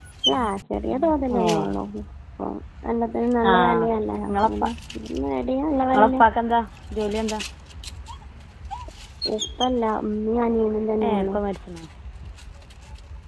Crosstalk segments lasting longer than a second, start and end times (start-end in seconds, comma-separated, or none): none